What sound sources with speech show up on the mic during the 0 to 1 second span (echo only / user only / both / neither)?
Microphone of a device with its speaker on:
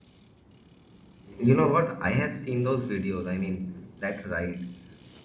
neither